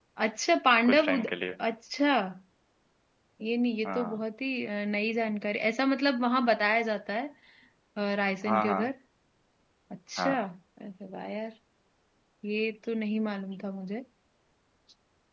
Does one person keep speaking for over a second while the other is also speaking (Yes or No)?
No